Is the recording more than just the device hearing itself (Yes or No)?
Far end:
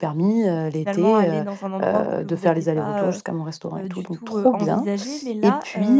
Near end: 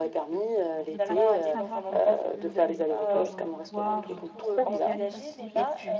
Yes